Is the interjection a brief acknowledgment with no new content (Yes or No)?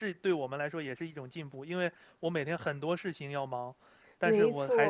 Yes